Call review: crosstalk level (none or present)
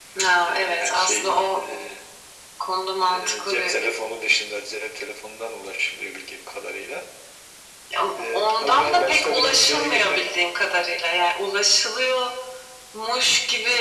present